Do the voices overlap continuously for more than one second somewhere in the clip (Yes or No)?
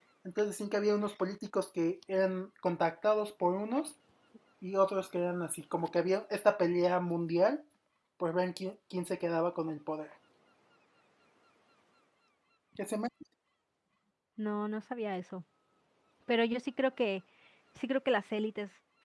No